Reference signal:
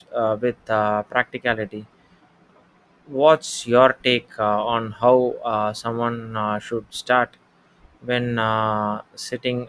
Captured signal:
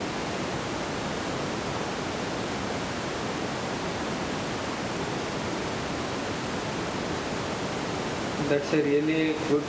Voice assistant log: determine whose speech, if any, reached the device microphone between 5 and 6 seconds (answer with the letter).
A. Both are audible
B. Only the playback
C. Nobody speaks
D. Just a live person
C